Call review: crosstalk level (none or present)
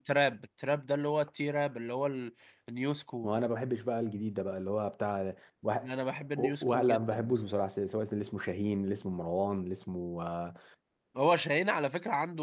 present